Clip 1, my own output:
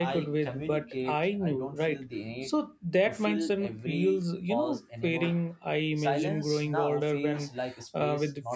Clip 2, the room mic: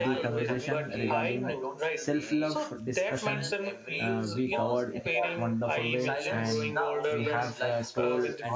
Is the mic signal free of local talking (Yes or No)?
No